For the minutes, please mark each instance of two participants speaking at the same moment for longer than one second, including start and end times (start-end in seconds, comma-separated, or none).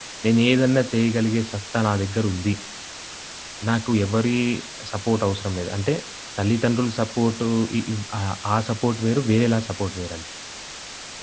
none